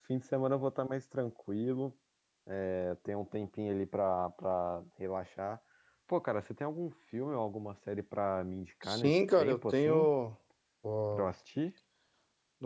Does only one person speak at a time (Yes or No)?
No